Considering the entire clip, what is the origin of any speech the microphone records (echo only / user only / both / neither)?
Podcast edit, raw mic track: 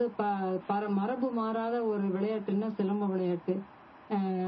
echo only